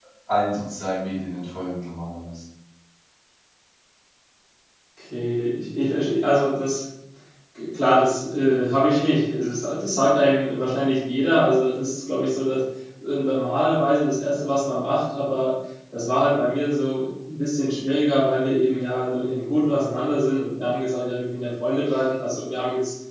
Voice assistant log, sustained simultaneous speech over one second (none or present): none